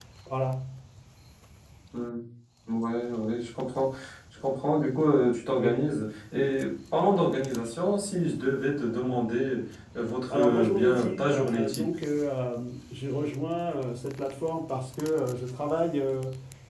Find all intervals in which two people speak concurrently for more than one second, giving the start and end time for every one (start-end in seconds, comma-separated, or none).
10.3-11.9